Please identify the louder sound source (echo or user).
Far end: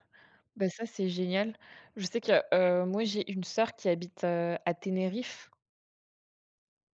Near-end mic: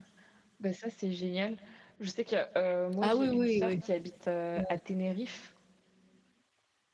user